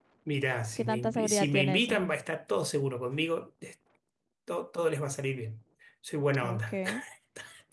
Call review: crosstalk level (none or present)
present